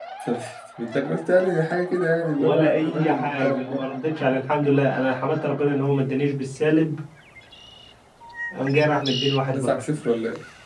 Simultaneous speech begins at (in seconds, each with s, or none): 2.4 s